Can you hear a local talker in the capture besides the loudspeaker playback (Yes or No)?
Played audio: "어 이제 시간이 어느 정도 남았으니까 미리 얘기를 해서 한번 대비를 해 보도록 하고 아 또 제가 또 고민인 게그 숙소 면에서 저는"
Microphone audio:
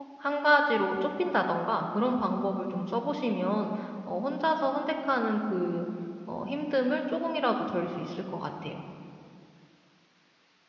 Yes